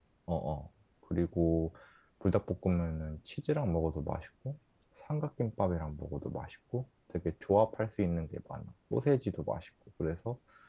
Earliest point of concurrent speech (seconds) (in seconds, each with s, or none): none